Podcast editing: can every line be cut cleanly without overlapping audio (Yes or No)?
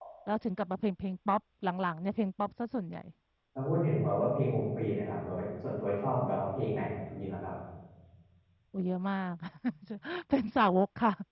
Yes